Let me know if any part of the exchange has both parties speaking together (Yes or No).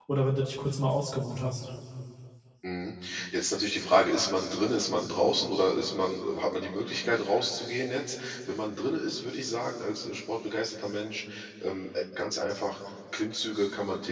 No